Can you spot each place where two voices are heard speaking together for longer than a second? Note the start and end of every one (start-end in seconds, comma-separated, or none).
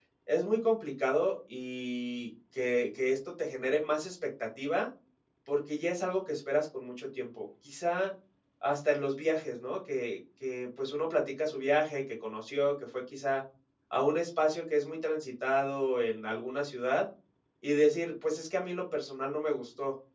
none